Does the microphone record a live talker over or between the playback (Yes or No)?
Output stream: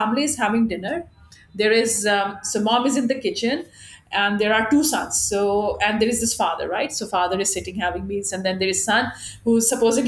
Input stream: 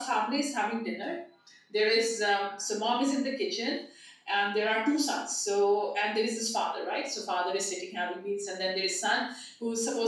No